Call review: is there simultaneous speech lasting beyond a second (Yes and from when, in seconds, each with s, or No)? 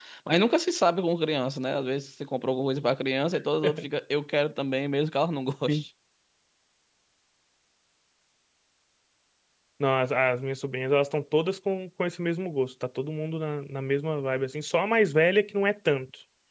No